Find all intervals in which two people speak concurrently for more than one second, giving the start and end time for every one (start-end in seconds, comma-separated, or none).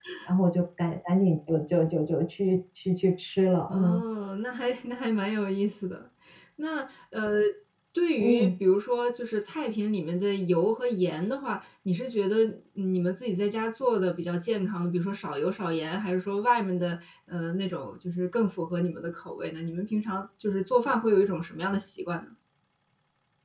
none